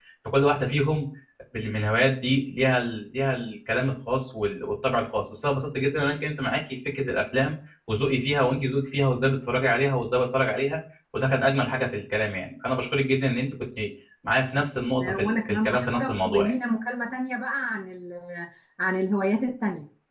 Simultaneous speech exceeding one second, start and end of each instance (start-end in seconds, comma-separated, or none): 14.6-16.5